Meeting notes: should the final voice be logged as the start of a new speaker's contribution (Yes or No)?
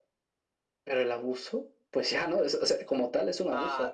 Yes